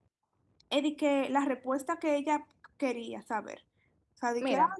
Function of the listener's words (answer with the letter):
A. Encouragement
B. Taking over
A